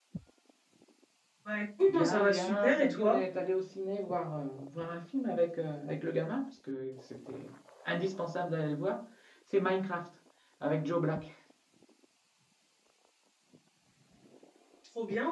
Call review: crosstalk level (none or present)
present